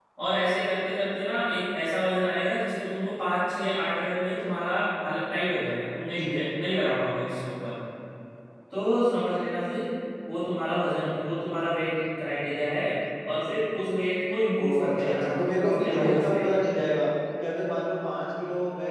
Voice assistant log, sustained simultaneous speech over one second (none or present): present